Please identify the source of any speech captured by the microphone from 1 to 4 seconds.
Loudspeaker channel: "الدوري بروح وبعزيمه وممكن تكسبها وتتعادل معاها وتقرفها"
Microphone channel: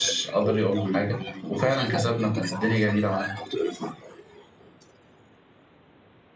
both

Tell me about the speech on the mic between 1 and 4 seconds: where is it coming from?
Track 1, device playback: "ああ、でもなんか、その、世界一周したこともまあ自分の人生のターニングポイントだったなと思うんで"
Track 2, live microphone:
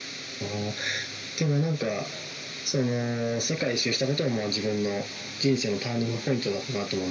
echo only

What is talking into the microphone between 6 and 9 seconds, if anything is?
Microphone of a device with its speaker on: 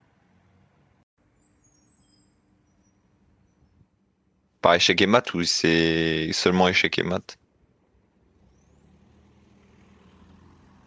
user only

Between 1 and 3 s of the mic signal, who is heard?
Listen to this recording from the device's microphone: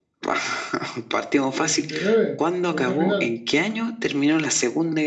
both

